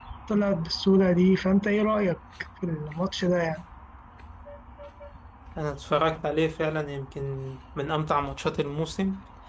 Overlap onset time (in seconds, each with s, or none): none